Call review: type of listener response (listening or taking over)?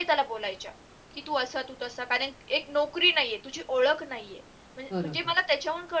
listening